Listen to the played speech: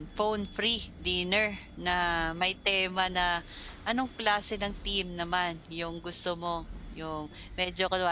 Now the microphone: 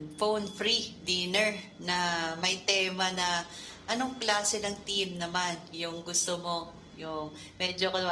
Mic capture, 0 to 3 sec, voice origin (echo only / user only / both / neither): echo only